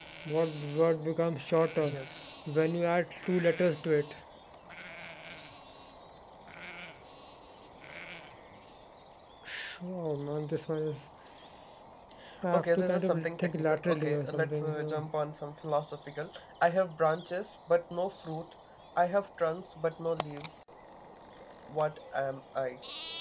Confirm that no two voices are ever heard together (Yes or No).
No